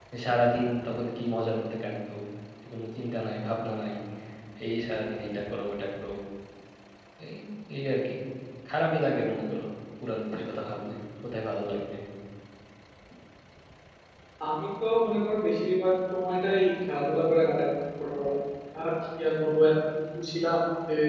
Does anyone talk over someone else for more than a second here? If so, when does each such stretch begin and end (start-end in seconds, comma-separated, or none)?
none